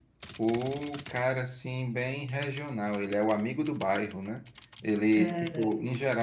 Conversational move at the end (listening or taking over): listening